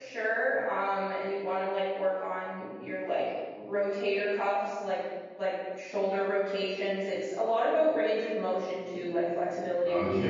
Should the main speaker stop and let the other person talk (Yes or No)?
Yes